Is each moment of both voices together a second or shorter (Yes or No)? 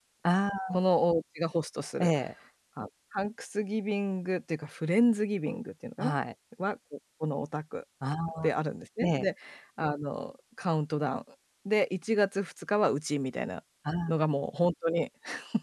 Yes